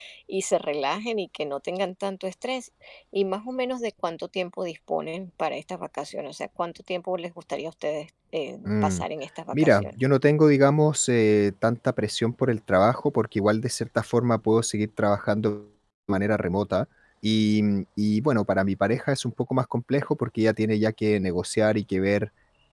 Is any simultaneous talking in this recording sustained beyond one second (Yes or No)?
No